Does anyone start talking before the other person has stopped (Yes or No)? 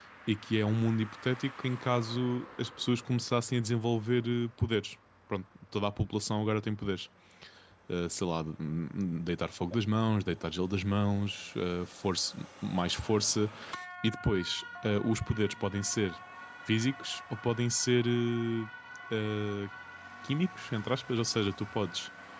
No